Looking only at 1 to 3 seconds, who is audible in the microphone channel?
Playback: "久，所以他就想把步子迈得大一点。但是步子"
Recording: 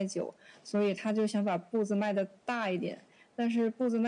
echo only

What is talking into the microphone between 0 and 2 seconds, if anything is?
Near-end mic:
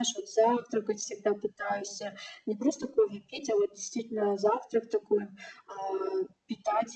echo only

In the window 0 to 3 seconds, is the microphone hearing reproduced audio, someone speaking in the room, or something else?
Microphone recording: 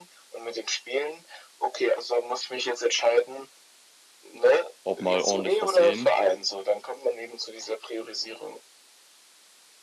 echo only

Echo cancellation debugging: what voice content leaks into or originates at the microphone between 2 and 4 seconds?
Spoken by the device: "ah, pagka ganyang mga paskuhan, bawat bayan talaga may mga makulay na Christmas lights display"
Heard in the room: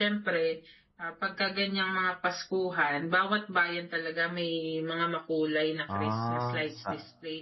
echo only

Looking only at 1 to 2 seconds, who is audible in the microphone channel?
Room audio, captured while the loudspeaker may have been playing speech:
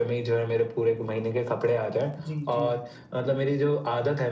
echo only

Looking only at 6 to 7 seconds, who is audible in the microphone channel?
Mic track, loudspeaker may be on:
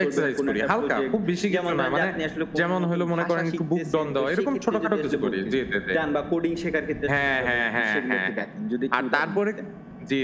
echo only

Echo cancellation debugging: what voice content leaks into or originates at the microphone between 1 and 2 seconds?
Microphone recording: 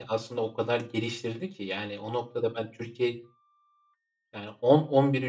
user only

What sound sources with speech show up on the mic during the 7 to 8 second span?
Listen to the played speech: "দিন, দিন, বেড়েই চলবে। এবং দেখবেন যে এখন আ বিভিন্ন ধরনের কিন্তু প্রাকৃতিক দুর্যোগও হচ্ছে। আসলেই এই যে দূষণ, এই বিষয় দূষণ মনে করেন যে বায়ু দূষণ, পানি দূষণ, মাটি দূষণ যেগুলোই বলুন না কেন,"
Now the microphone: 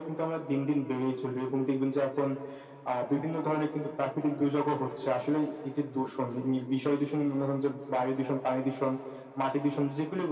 echo only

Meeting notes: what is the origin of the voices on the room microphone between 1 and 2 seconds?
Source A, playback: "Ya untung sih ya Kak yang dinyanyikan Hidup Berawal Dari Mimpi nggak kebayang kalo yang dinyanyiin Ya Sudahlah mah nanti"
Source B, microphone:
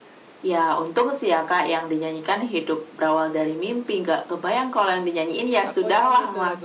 echo only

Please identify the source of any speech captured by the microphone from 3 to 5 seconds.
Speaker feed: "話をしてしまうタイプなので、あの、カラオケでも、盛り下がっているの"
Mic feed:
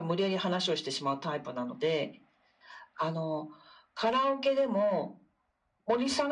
echo only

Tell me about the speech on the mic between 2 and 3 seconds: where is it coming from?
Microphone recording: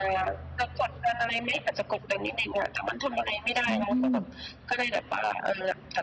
echo only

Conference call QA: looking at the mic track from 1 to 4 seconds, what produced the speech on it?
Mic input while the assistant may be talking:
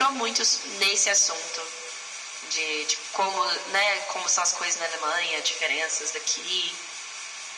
echo only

